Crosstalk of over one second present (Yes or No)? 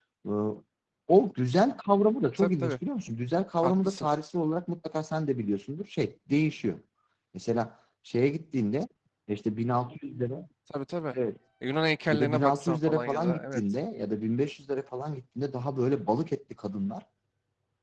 Yes